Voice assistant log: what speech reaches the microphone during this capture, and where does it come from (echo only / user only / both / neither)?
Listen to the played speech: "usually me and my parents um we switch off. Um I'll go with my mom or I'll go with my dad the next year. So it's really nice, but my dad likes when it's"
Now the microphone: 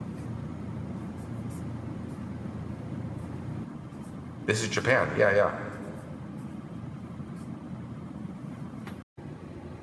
user only